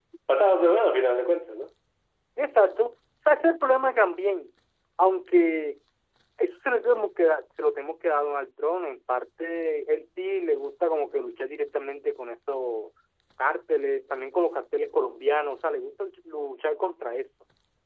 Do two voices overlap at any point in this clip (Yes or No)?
No